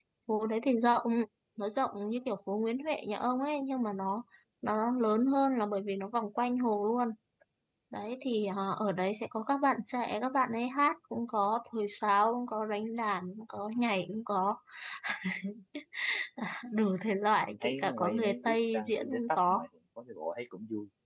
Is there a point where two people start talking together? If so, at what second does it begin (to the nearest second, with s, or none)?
17 s